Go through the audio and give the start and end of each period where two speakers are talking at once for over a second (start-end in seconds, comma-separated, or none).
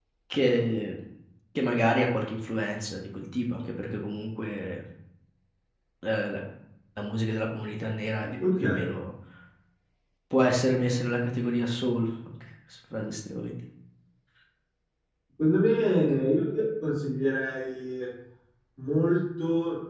none